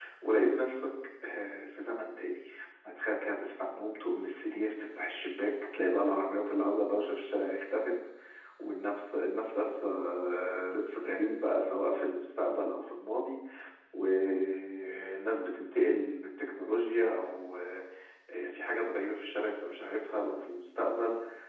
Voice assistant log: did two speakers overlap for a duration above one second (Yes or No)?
No